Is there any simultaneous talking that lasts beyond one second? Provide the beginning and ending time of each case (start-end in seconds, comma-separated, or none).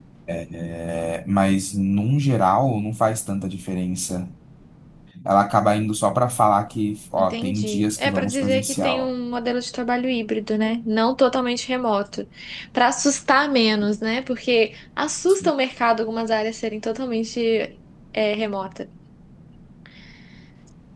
7.2-9.1